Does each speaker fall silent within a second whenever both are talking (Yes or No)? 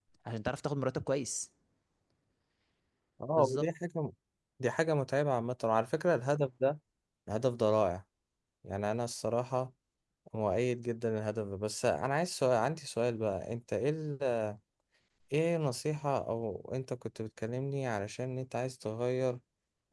Yes